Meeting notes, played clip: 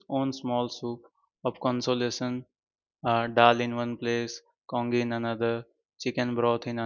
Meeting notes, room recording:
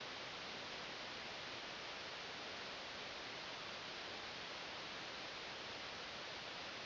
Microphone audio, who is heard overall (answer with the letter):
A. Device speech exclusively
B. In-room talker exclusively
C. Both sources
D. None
D